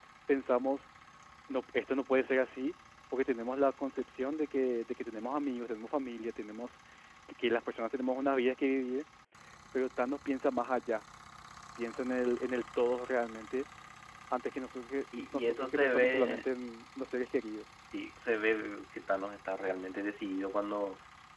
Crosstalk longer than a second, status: present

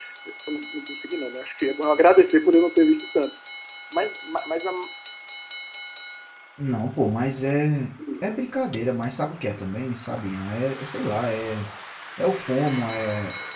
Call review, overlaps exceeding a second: none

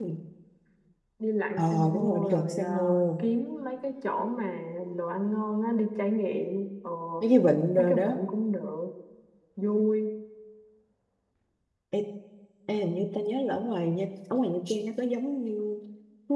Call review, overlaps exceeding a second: present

